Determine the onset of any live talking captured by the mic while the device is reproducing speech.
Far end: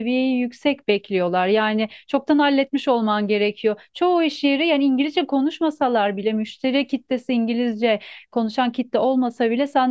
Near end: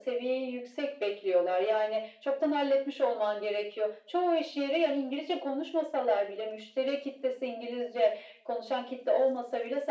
none

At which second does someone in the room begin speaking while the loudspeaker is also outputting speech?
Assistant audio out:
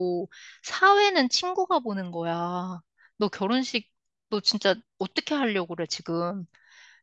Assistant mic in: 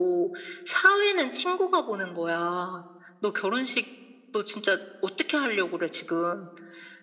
none

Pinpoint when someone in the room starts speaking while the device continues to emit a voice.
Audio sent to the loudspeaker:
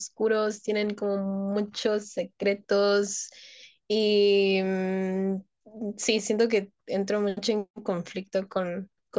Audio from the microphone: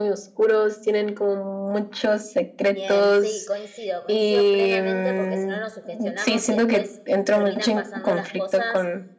2.6 s

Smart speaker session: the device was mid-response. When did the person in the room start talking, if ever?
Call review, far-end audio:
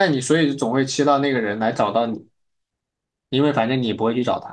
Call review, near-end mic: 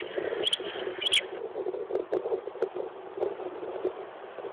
none

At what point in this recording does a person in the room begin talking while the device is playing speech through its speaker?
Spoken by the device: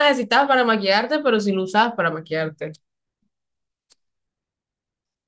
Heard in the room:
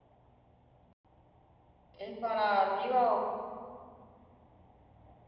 1.9 s

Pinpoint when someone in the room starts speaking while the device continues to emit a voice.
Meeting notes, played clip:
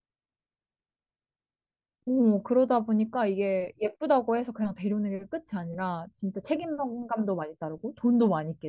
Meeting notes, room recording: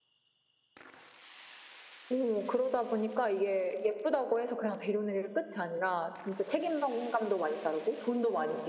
none

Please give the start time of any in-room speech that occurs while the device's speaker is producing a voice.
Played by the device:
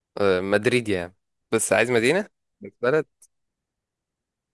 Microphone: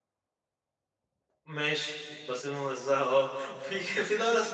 1.4 s

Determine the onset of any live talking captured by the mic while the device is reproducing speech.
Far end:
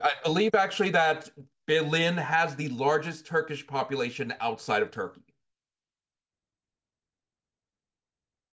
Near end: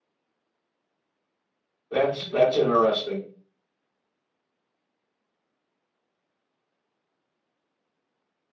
1.9 s

